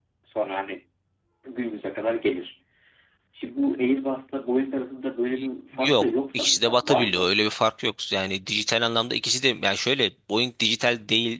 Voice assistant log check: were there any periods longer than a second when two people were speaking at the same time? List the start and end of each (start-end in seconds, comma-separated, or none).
5.7-7.4